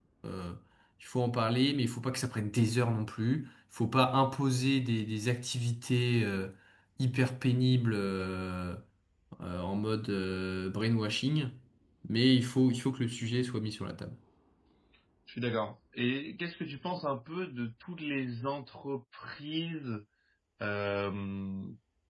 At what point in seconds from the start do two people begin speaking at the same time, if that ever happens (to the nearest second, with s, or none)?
none